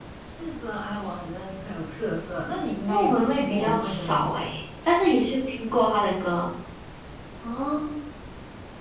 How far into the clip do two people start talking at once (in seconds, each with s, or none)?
2.9 s